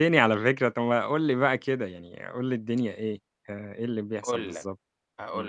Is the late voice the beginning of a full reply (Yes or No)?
Yes